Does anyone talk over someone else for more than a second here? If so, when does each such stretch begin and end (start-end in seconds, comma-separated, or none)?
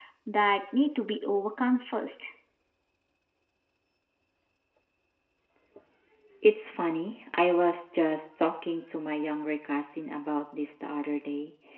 none